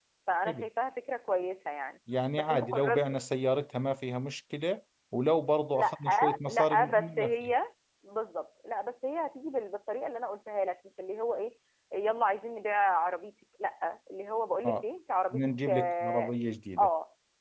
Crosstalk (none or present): present